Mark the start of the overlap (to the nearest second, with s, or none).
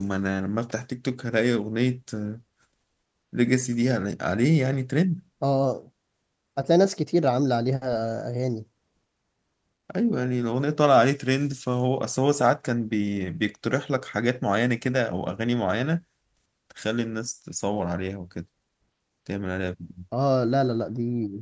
none